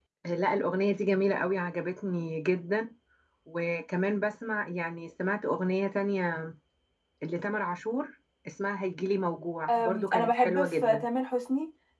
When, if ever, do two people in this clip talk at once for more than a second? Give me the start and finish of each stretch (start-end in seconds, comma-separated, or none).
9.7-11.0